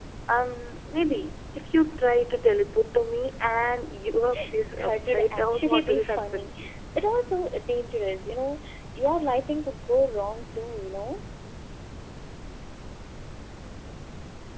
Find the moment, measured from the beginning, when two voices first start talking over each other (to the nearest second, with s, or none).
5 s